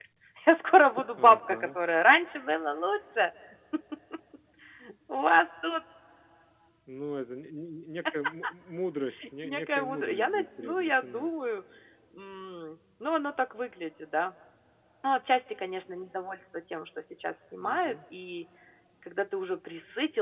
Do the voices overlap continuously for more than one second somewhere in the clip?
Yes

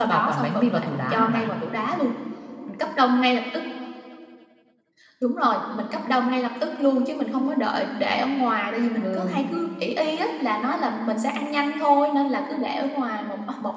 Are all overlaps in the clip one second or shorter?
No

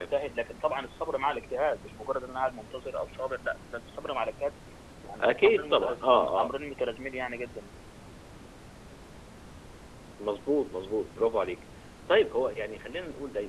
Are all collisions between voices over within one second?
No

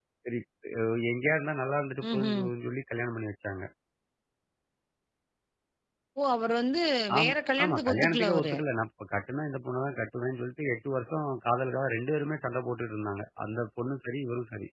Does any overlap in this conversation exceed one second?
Yes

